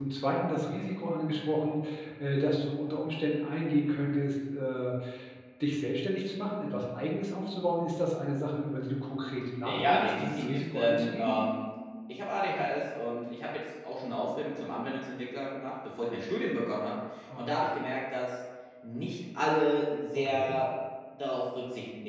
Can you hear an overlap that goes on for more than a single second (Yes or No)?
Yes